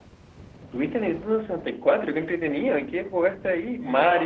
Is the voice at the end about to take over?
Yes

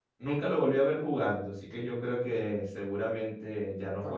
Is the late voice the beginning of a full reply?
Yes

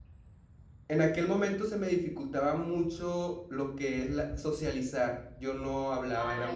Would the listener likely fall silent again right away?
No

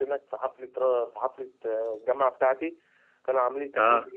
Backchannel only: Yes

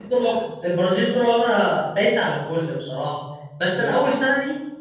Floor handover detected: No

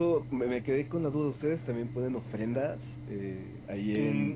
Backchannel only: No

